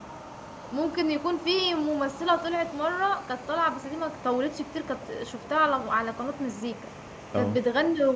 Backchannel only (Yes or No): Yes